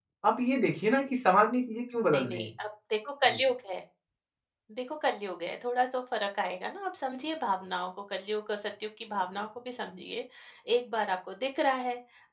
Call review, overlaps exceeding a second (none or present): none